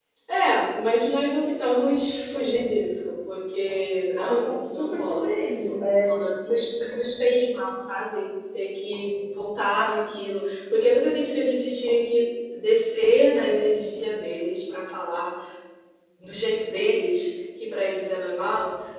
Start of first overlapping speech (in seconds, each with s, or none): 4.1 s